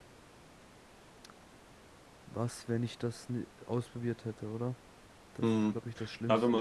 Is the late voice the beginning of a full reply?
Yes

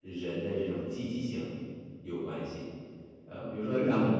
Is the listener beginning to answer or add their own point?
No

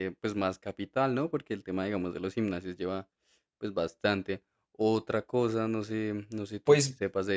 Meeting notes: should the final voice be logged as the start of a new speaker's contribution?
No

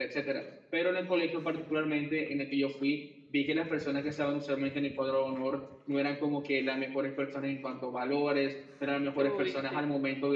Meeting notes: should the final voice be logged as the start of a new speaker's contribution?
No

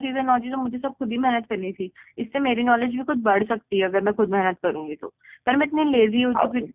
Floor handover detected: No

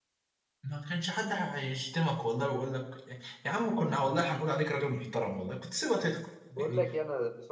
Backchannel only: No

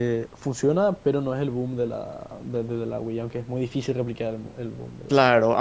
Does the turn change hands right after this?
Yes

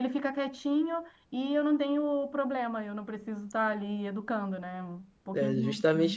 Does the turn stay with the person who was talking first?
No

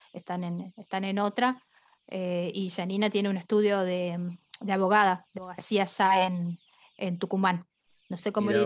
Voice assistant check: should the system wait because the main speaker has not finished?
Yes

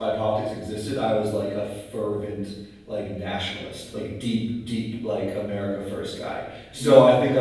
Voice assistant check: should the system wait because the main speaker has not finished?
Yes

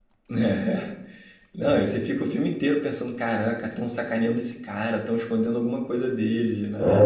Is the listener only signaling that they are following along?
No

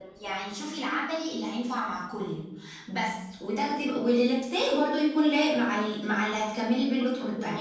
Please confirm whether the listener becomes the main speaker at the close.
Yes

